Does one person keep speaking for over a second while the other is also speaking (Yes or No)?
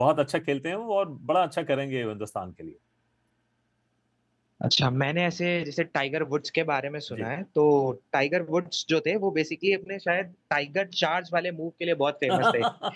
No